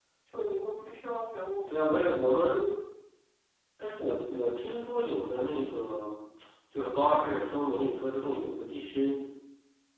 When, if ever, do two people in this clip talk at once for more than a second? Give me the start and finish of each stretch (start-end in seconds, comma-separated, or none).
none